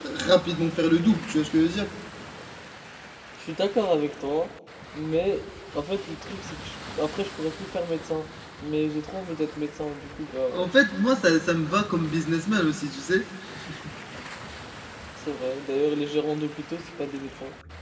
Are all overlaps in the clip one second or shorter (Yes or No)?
Yes